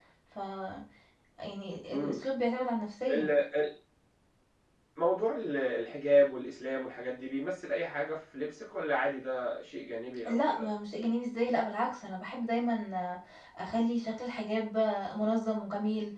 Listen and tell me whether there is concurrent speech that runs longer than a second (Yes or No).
No